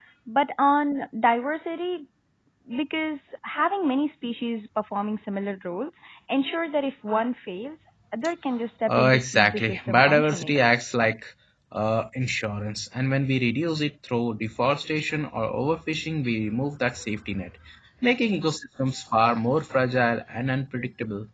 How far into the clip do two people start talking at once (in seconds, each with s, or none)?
8.8 s